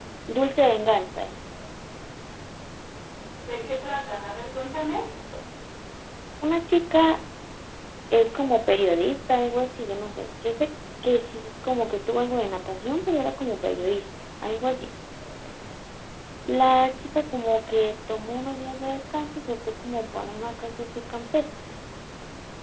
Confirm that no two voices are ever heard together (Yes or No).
Yes